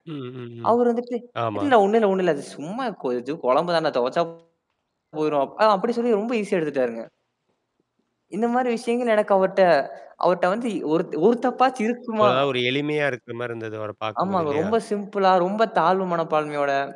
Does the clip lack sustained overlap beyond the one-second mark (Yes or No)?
Yes